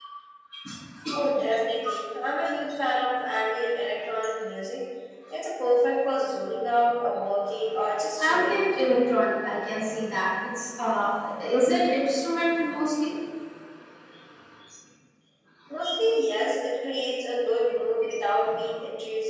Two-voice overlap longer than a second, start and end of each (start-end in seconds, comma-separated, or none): none